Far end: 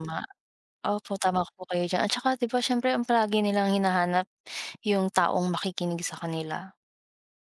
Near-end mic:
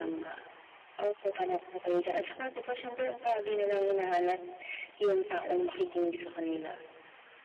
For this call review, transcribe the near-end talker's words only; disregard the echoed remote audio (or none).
none